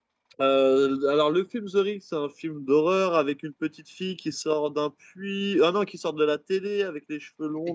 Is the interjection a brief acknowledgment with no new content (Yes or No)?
No